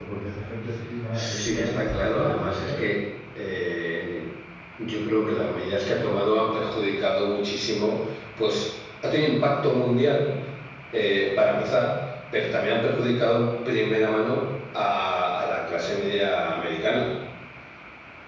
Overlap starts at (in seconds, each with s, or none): 1.1 s